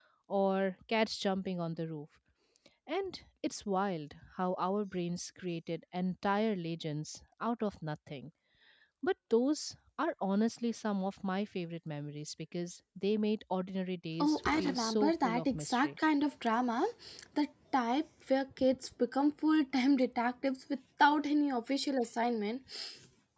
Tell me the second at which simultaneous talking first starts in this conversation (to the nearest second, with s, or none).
14 s